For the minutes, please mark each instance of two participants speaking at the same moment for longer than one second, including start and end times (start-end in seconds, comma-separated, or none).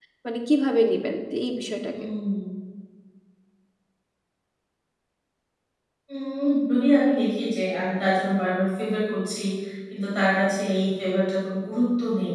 none